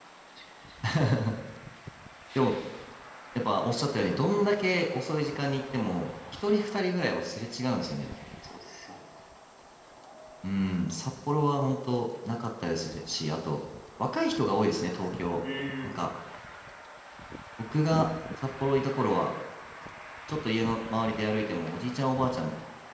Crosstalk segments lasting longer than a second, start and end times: none

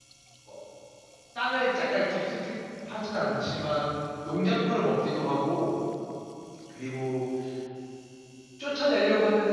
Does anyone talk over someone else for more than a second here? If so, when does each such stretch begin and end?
none

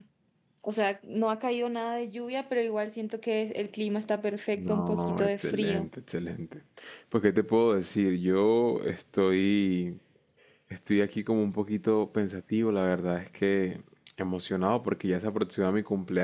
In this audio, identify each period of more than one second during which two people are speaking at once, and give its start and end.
4.6-5.9

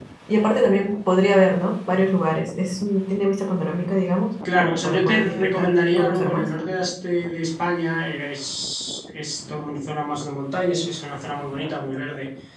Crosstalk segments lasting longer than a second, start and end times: 4.5-6.5

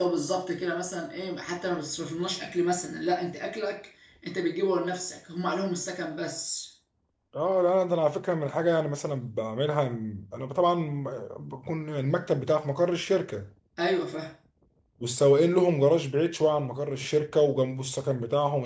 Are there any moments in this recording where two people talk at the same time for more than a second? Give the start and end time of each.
none

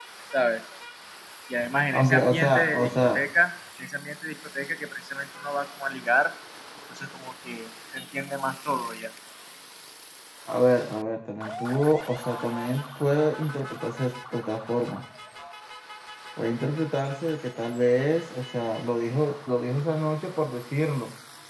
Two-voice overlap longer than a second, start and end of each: 1.9-3.2

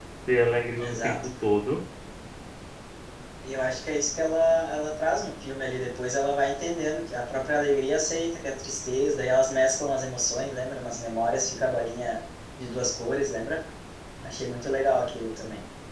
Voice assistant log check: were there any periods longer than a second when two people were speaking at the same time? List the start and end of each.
none

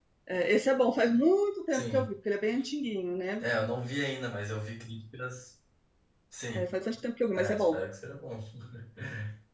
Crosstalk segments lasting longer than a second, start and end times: none

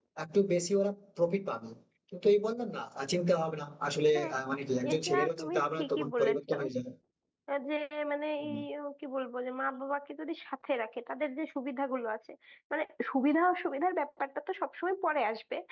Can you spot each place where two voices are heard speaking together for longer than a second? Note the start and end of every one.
4.9-6.5

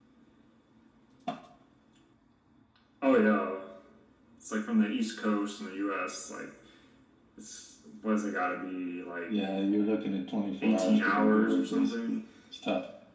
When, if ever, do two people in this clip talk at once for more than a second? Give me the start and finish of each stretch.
10.6-12.2

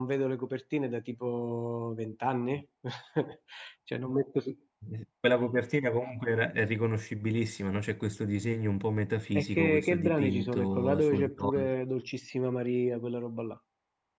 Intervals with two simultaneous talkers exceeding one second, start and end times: 9.4-11.7

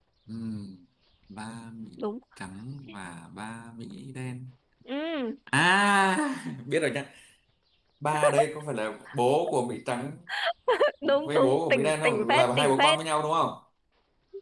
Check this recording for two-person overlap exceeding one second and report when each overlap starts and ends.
11.1-13.0

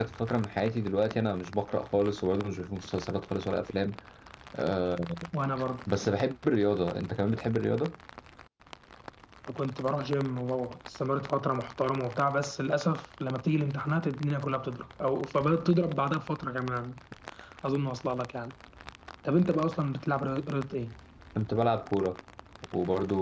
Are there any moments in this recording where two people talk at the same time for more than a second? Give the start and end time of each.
none

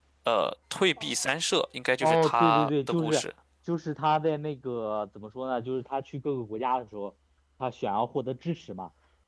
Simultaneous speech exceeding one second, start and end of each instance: 2.0-3.2

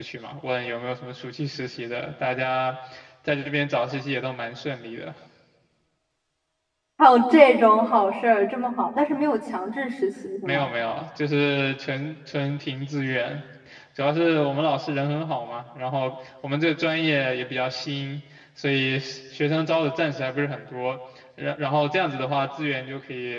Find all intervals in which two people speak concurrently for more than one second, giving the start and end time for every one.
none

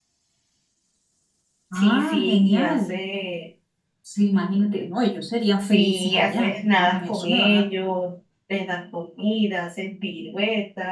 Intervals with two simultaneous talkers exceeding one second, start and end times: 1.7-3.0, 5.7-7.7

